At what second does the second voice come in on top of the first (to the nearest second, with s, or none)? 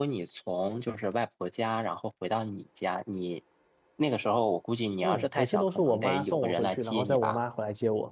5 s